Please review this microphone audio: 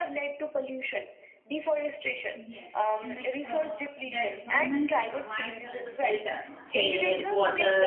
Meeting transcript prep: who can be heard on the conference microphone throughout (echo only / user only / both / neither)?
both